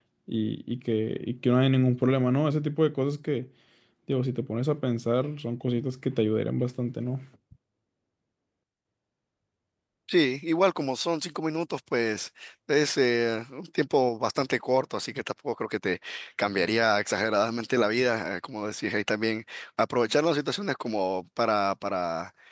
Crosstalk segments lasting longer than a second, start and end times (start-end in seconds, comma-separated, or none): none